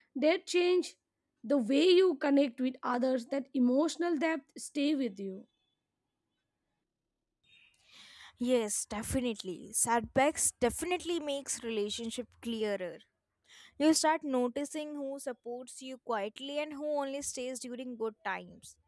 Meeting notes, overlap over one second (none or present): none